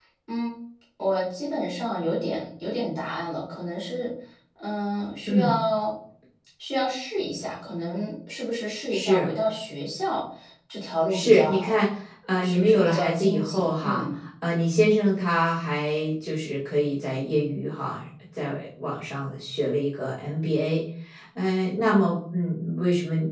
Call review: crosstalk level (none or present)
present